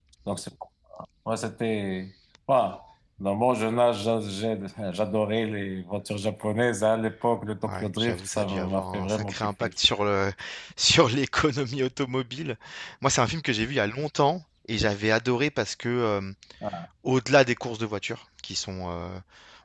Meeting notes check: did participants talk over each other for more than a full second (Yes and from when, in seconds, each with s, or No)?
Yes, from 8.0 s